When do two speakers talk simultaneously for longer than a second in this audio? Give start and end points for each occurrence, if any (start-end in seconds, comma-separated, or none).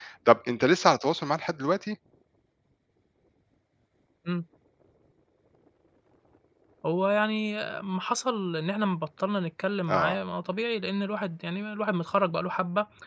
none